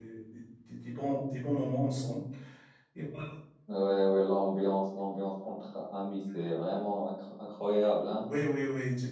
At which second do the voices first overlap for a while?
none

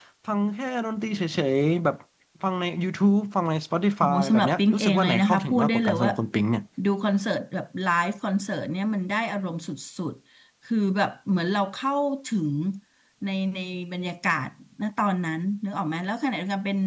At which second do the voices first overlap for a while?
4.0 s

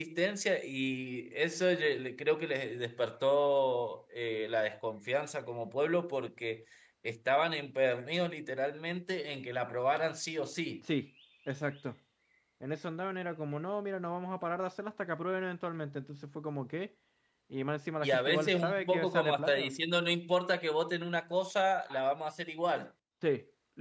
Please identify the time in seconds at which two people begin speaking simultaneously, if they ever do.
18.0 s

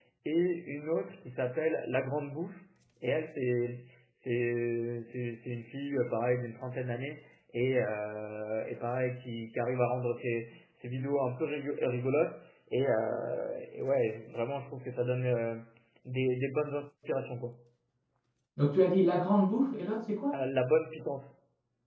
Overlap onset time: none

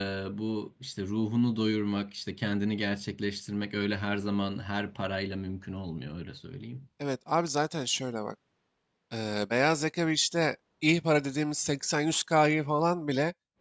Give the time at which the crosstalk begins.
none

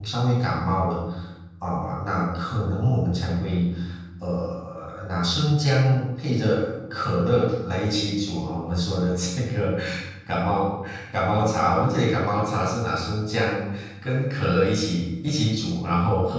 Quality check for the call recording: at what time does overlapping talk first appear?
none

